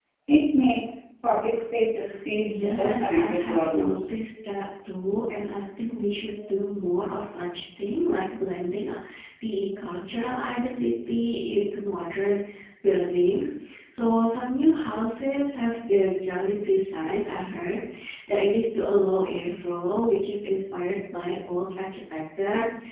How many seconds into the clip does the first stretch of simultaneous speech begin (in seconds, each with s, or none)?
2.4 s